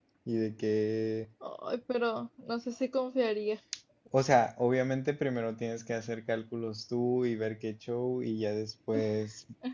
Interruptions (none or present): none